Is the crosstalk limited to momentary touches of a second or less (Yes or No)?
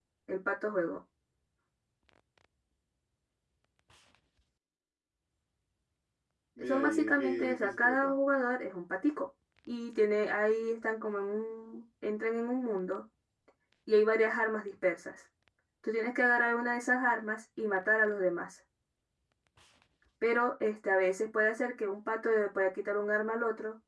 No